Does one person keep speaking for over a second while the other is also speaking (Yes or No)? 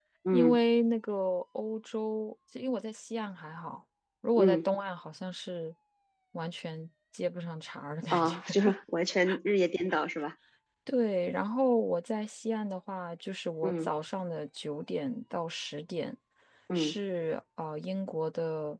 No